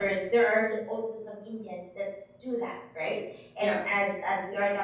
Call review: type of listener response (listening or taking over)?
listening